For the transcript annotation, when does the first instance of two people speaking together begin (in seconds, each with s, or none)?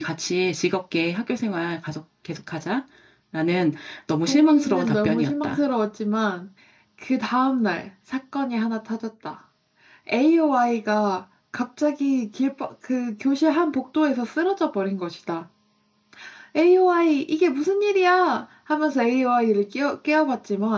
4.3 s